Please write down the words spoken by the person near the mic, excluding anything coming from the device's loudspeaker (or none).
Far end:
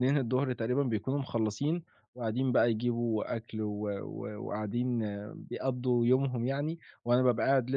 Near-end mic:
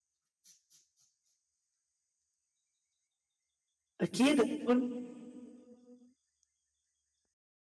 أكيد هتكون